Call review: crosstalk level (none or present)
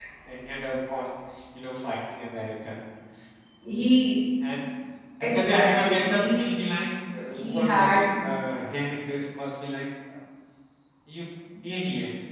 present